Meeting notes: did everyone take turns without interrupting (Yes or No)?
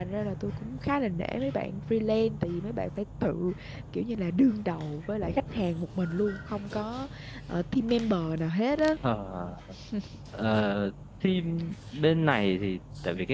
Yes